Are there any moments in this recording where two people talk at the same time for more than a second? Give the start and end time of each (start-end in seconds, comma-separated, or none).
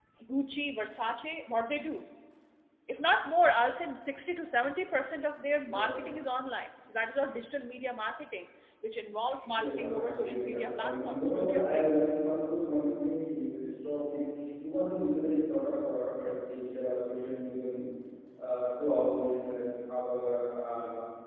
9.6-11.9